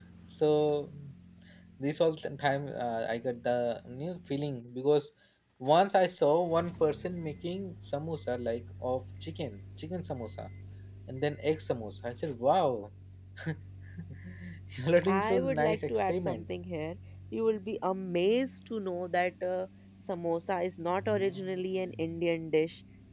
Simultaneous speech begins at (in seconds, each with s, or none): 15.0 s